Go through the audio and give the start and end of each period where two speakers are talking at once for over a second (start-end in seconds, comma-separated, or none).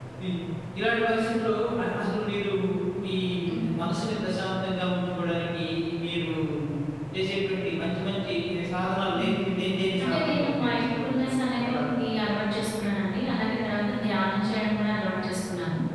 10.0-11.8